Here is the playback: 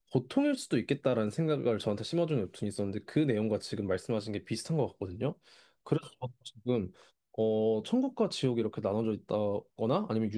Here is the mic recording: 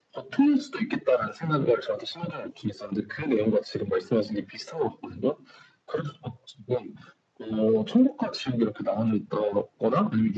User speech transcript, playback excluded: none

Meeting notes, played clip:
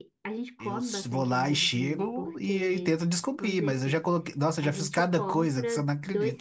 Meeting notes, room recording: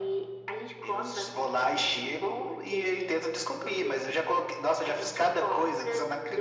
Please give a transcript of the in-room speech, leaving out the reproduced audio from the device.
none

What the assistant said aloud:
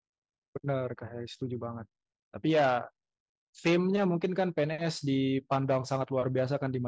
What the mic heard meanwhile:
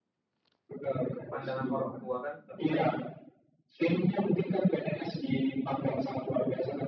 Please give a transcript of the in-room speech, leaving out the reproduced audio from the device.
pandangan orang tua kan

